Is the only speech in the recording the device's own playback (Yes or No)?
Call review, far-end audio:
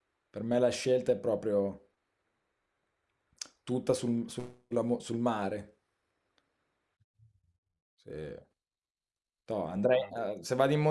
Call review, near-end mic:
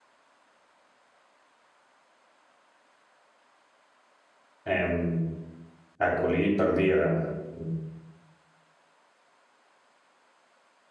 No